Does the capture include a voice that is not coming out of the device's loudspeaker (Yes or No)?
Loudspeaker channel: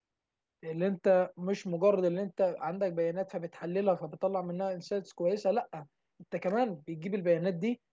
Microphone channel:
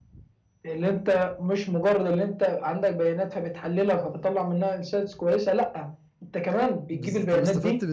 Yes